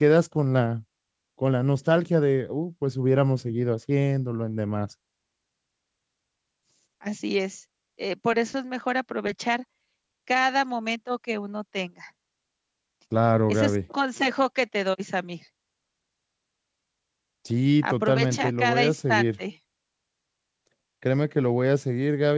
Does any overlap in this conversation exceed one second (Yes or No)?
Yes